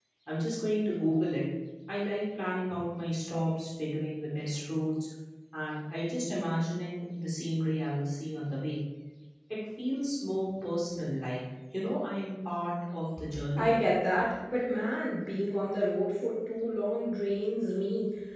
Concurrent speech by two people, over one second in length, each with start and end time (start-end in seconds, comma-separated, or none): none